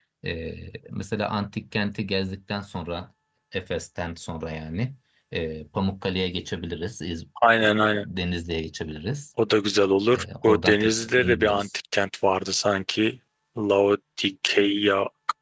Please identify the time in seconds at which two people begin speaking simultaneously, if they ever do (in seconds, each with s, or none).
10.2 s